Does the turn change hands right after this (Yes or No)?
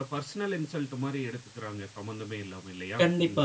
Yes